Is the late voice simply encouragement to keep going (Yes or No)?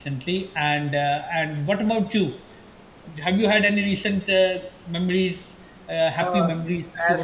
No